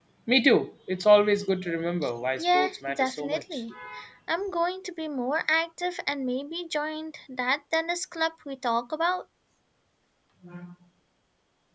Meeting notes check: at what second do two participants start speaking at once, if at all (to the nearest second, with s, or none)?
2 s